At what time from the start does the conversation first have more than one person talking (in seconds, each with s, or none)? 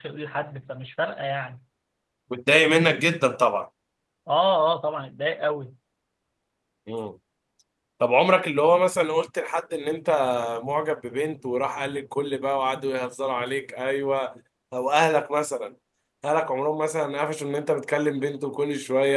none